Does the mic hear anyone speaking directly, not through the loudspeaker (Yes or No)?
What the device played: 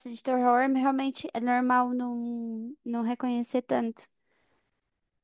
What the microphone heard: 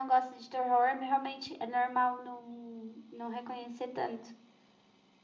No